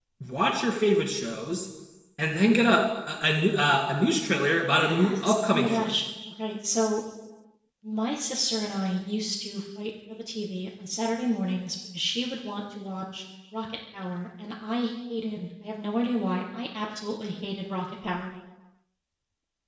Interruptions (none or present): present